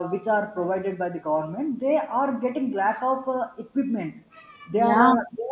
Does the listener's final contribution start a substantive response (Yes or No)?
No